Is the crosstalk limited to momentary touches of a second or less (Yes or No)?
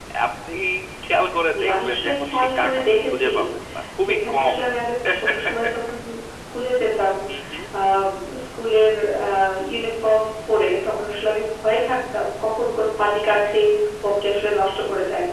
No